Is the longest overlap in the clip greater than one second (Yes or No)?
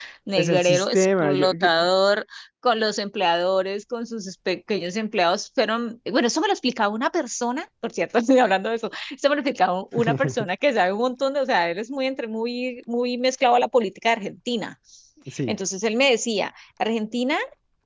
Yes